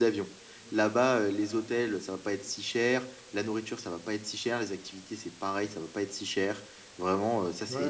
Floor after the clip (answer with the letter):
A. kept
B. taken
B